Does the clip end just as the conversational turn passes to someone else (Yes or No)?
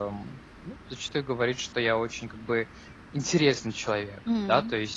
No